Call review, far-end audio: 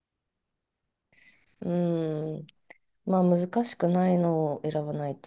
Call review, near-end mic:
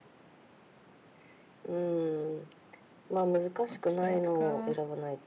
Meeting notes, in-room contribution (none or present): present